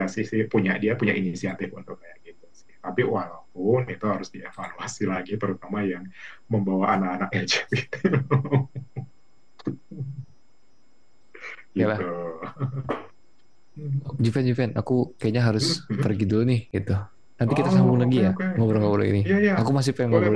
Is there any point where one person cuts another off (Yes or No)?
Yes